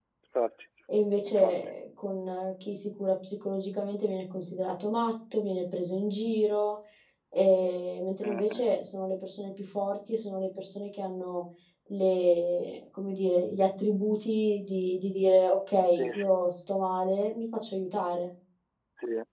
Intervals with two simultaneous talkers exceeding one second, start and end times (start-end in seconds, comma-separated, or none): none